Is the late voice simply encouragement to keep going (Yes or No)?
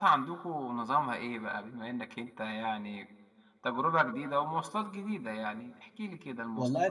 No